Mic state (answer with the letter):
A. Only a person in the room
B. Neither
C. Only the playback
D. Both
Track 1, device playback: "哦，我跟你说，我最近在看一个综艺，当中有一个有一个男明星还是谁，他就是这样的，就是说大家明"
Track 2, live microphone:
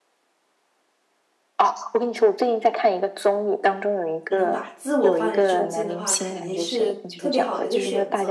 D